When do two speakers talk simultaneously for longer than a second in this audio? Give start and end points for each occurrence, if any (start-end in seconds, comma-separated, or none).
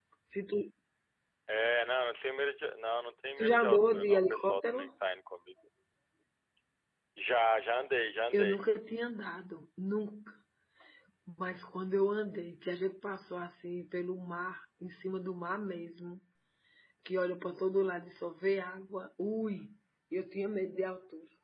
3.4-4.8